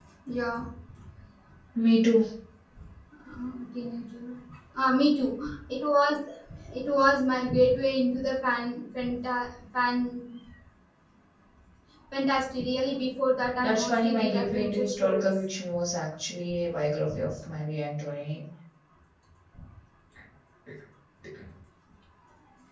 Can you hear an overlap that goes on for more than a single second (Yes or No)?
Yes